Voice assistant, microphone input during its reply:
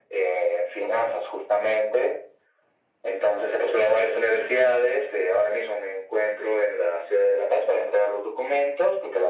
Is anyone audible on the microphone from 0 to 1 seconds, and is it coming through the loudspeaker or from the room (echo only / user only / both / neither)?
echo only